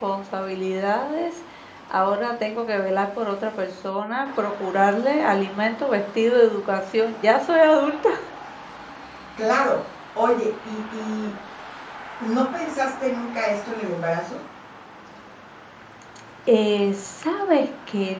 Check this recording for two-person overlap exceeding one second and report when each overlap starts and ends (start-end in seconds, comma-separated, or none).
none